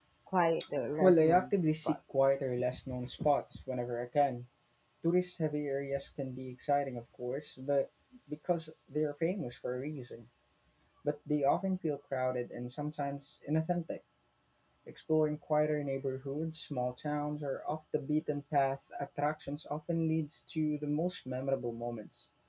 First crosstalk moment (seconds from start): 1 s

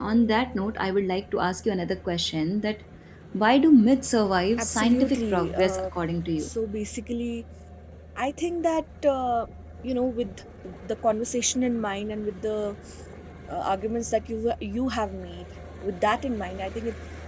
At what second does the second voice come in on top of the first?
5 s

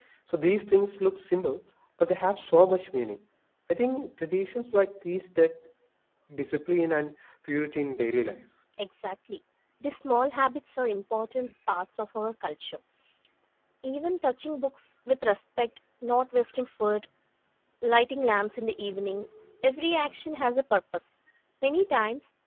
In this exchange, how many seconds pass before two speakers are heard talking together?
none

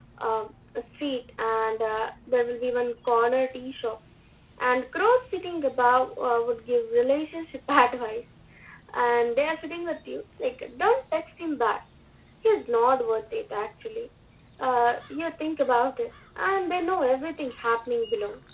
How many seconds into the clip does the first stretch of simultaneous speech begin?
none

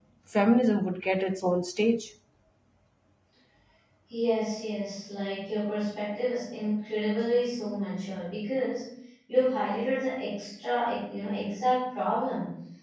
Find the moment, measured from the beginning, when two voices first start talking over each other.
none

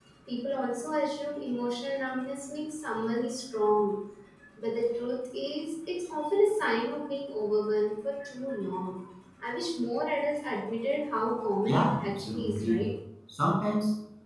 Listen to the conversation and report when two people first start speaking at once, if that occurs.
12 s

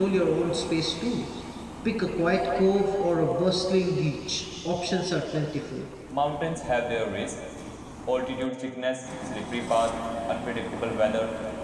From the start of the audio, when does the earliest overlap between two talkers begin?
none

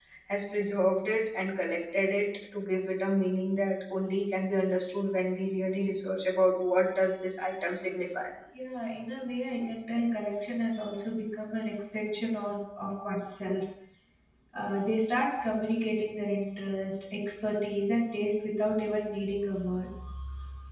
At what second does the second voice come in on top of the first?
none

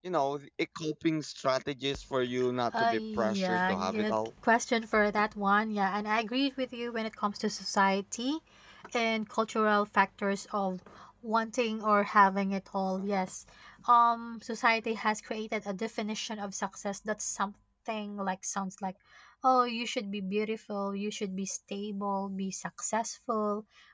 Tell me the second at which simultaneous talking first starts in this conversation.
3 s

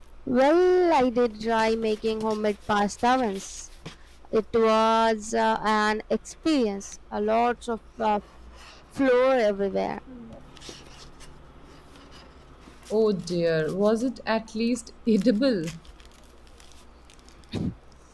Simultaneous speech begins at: none

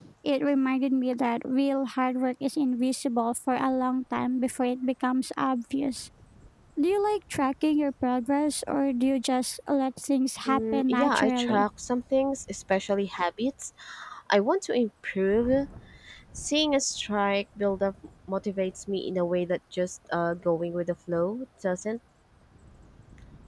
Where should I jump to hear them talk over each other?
10 s

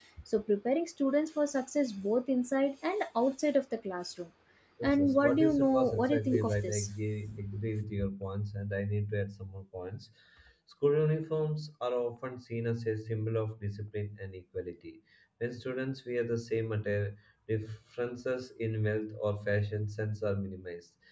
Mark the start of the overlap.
5 s

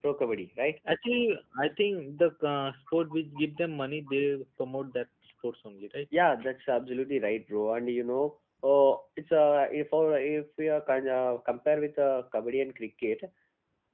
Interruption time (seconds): none

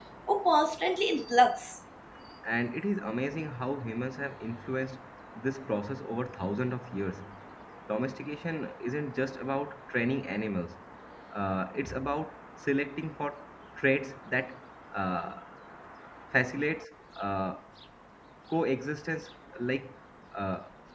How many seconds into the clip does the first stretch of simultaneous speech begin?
none

